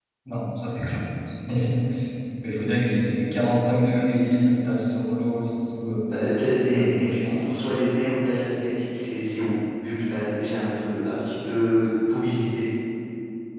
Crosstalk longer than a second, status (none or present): present